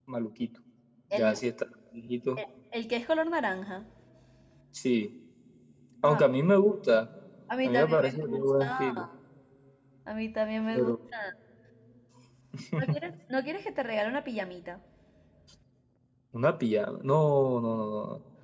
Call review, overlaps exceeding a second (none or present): present